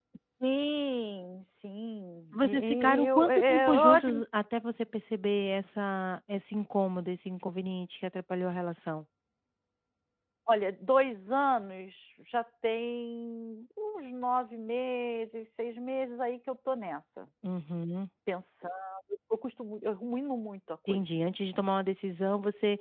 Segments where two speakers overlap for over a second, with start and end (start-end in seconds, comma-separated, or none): 2.3-4.2